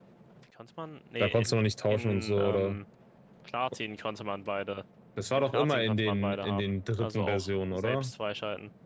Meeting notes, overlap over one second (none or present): present